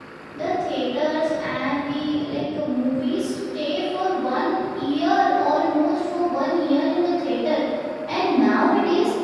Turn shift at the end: No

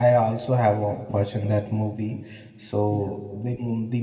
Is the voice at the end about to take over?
No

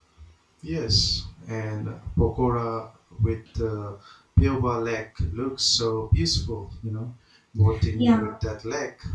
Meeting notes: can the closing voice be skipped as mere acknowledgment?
Yes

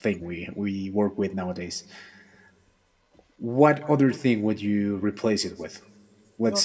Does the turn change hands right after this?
No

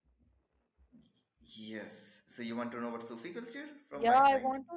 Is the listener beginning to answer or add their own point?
Yes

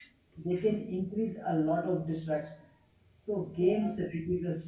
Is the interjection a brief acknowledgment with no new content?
Yes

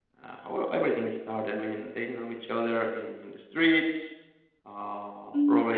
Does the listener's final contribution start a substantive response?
Yes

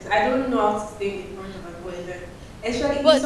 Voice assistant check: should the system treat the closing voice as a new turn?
No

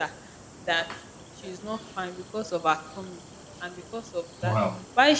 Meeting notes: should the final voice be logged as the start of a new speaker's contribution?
No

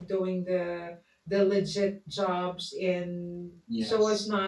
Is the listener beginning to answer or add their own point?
No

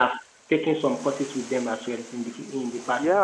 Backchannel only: No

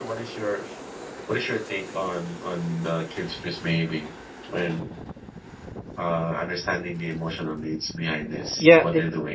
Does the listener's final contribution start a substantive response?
Yes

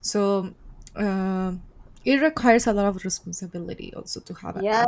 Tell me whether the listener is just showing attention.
No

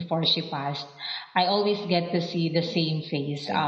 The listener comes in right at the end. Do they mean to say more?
No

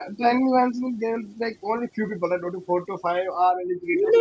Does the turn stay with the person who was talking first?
No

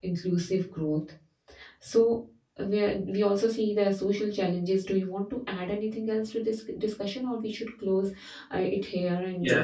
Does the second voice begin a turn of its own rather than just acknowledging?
Yes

